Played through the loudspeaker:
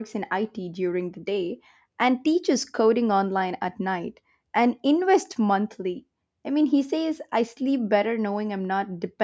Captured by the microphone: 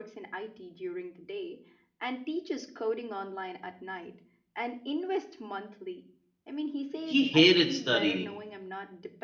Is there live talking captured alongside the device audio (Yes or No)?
Yes